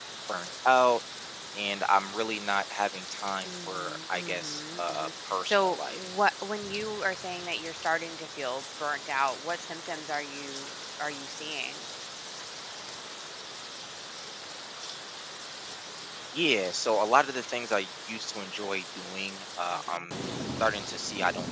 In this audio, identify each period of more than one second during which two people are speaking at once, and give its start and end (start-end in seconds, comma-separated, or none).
3.4-6.1